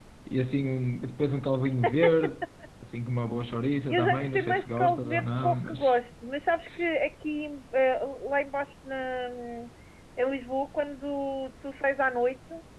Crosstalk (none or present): present